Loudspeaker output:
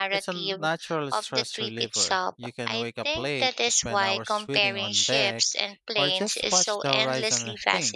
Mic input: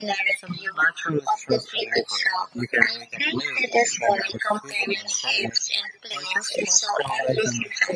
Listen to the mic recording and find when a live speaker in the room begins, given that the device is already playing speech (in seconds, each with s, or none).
none